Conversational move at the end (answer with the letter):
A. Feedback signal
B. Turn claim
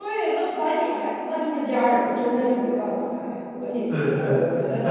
B